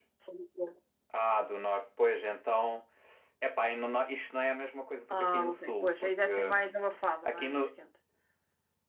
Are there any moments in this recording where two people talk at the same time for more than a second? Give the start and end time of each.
5.1-6.3

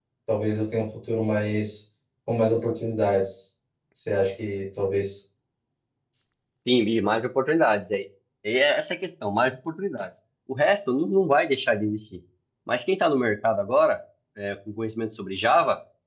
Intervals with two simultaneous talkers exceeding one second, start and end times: none

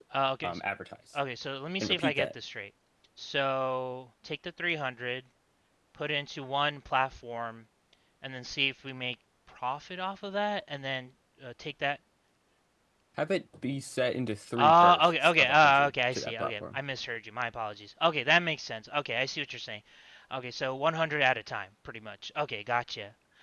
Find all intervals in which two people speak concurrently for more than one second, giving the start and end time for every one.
14.6-16.8

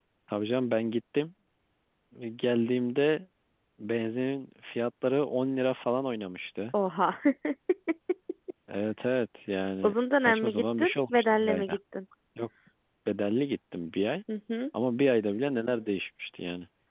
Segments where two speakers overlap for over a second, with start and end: 9.8-11.8

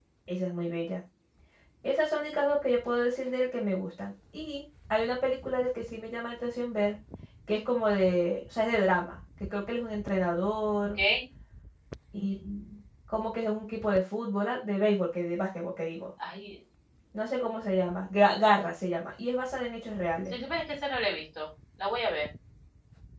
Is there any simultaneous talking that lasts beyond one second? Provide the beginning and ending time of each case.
none

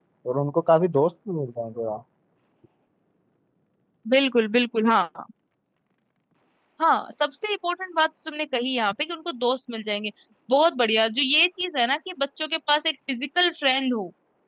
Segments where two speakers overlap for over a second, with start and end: none

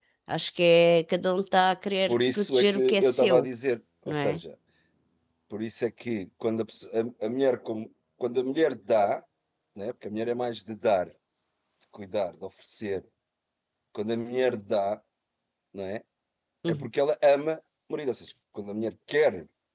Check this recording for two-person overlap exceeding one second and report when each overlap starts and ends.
2.1-3.5

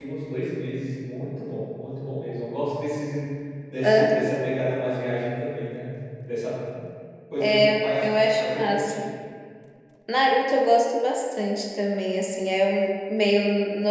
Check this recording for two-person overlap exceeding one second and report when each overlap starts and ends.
7.4-9.0

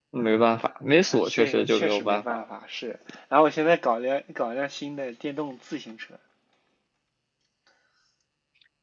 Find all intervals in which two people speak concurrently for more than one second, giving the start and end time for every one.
1.1-2.4

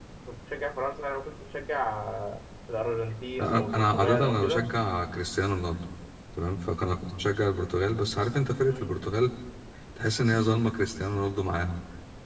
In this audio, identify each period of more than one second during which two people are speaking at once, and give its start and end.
3.4-4.7

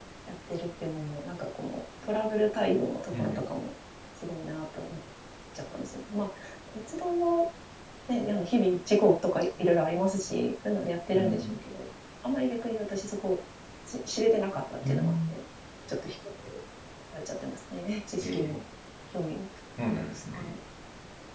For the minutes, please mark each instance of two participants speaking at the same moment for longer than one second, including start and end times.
none

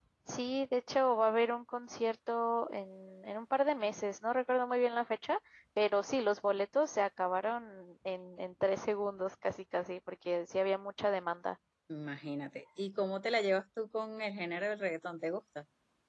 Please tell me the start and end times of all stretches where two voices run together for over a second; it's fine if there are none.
none

